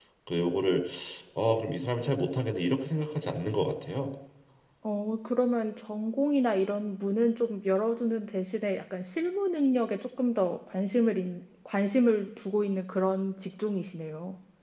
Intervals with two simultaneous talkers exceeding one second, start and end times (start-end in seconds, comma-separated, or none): none